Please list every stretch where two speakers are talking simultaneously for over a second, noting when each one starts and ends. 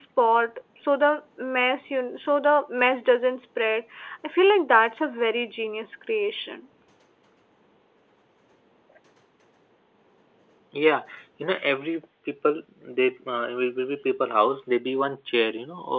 none

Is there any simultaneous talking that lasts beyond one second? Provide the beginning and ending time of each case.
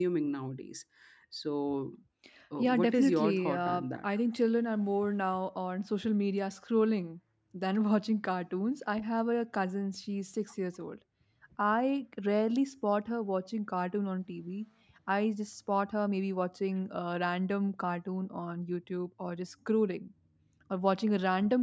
2.6-4.1

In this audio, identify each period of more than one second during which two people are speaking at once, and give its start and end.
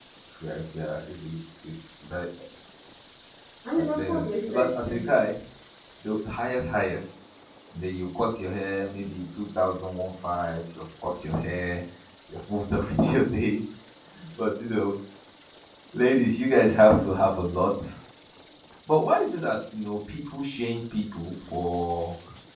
3.8-5.2

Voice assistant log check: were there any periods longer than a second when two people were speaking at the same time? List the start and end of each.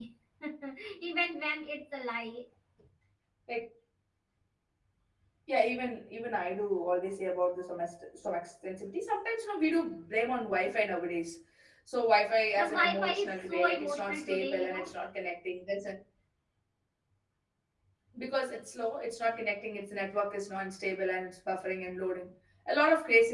12.6-14.9

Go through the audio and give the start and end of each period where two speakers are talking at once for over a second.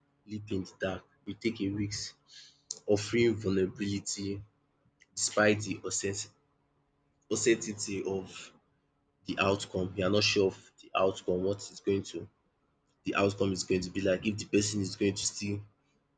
none

